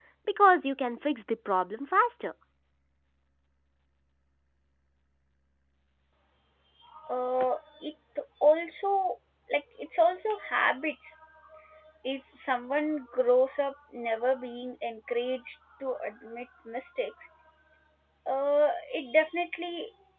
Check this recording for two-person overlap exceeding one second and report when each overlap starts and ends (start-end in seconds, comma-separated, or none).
none